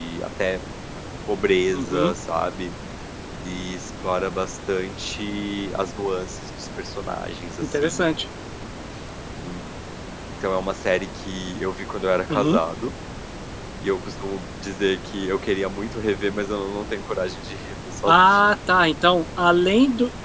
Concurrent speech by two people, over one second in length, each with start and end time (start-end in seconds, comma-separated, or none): none